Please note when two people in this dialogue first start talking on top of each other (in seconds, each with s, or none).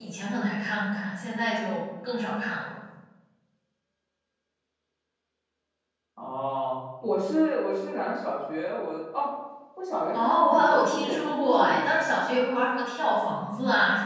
10.1 s